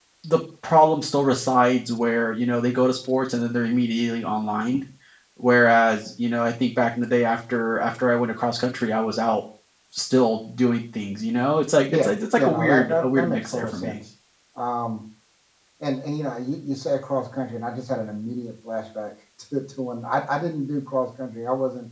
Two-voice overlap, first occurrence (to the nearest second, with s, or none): 12 s